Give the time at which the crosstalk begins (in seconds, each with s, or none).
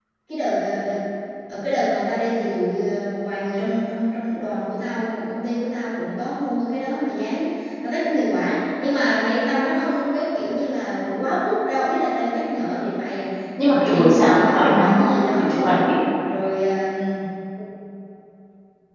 13.6 s